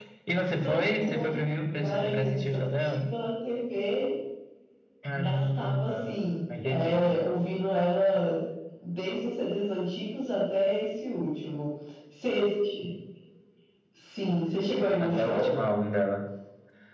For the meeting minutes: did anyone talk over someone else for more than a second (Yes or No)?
Yes